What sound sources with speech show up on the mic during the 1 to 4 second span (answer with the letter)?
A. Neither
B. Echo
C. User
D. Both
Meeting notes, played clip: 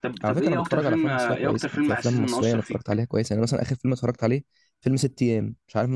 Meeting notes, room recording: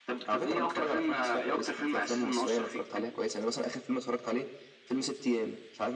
B